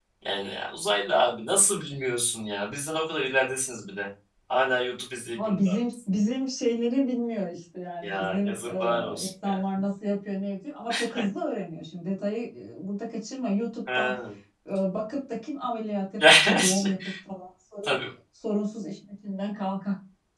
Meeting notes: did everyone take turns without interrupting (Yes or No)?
No